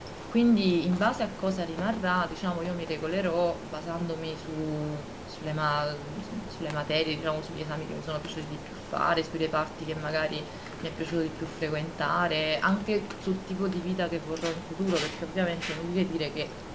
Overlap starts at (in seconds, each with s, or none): none